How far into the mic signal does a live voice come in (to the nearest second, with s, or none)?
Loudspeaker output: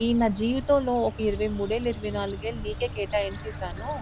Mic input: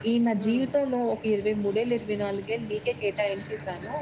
0 s